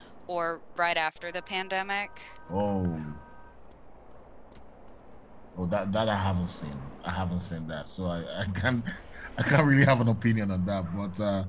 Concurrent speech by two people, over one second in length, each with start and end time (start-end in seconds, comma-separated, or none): none